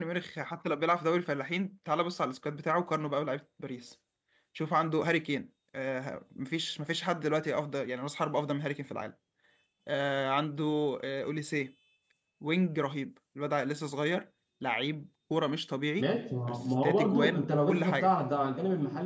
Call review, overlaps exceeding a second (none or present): present